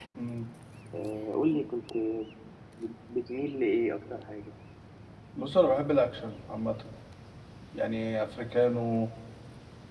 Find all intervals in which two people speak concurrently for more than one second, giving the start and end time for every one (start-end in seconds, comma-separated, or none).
none